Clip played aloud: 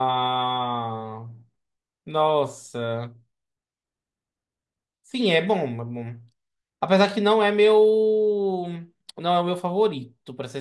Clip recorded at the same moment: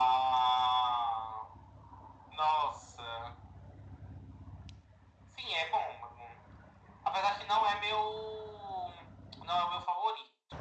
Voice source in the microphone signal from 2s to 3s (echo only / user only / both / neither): echo only